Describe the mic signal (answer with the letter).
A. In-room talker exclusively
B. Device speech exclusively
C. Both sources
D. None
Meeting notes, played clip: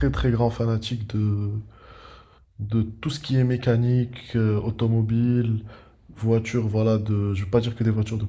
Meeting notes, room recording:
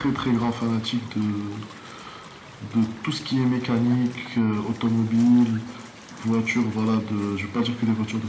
B